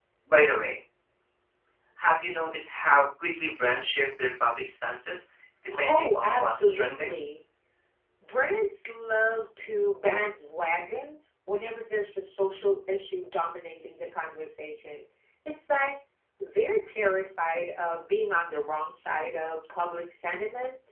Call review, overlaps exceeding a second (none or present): present